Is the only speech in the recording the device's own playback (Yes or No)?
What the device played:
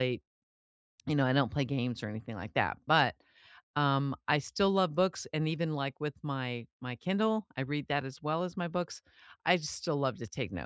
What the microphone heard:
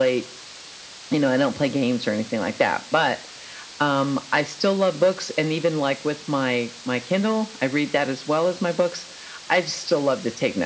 Yes